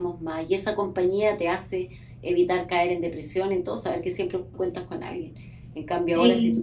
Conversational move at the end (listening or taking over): listening